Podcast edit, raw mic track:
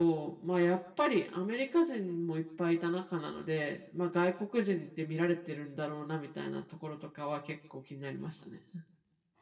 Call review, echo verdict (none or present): none